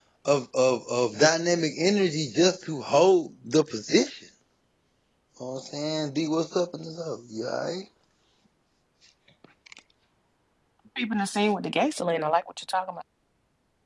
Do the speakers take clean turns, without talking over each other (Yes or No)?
Yes